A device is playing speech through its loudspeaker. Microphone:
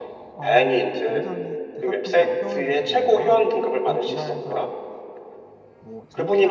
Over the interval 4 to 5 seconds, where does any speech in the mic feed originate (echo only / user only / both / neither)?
both